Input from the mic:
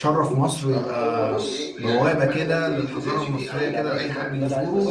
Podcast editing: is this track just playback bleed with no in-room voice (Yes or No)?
No